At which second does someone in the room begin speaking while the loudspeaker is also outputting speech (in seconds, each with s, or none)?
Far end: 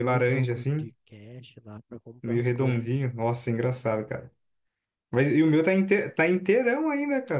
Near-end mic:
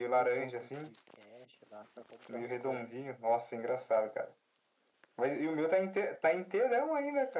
none